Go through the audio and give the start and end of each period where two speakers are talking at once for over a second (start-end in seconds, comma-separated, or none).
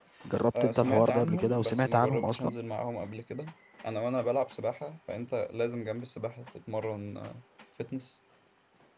0.6-2.5